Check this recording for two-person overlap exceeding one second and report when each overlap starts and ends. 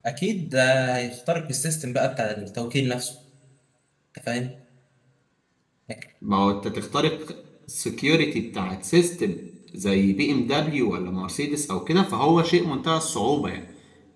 none

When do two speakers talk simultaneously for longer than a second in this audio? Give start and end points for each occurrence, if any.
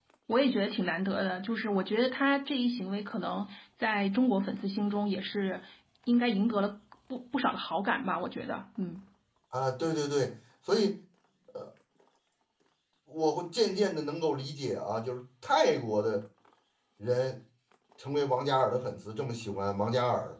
none

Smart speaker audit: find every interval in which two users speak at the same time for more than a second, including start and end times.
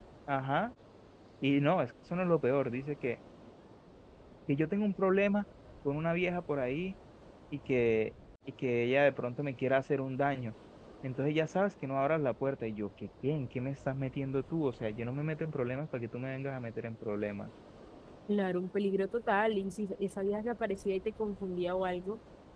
none

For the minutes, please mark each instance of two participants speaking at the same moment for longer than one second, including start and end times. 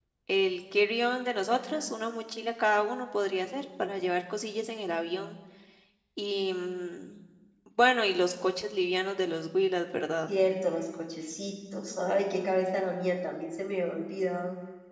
none

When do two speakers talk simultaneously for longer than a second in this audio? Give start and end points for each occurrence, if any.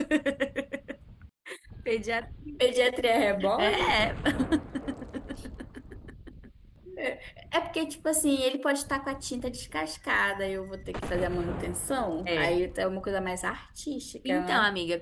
none

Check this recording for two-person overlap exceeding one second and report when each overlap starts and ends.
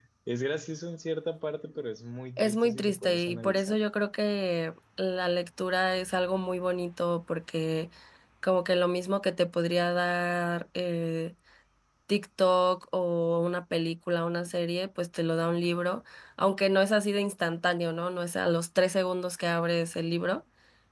2.4-3.8

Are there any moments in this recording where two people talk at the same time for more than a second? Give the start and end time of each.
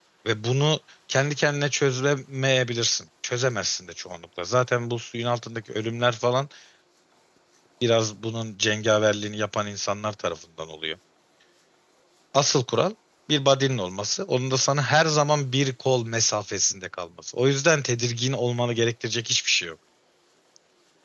none

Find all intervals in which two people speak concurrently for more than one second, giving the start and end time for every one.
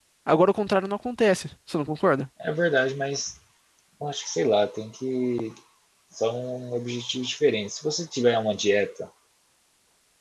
none

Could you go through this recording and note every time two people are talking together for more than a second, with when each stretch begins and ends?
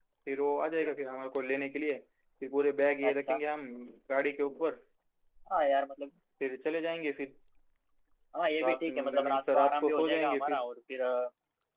8.6-10.6

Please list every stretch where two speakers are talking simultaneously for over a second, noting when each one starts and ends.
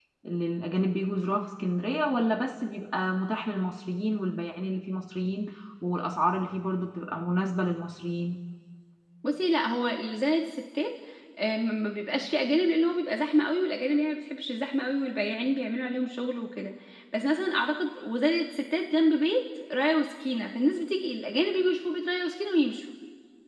none

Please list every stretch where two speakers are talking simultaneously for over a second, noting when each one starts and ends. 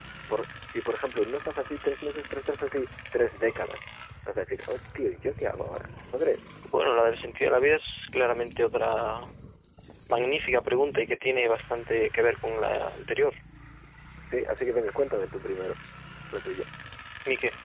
none

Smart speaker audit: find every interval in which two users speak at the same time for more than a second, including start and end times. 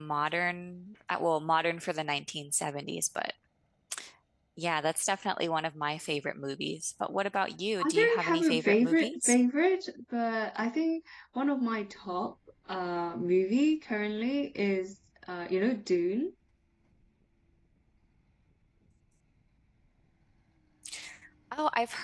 7.8-9.4

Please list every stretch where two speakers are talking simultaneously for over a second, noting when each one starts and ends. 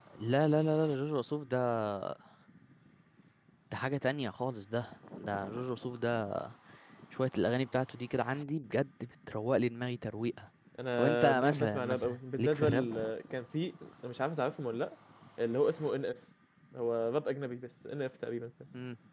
11.0-12.9

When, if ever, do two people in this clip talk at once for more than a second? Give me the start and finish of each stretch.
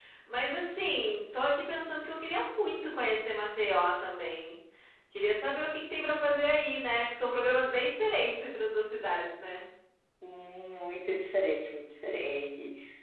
none

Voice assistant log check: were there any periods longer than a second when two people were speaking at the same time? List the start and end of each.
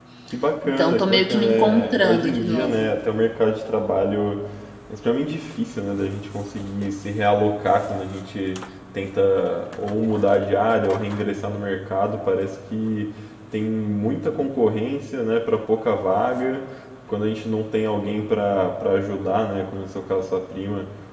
0.8-2.9

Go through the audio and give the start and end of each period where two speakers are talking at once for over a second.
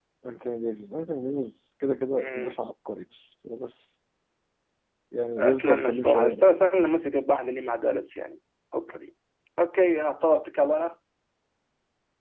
5.4-6.7

